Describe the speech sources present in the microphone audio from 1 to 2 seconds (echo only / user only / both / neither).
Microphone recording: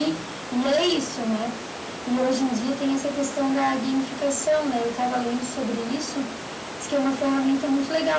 echo only